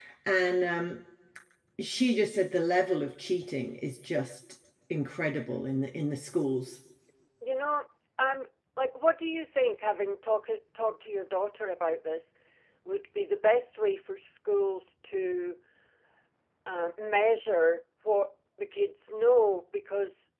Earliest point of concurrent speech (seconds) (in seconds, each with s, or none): none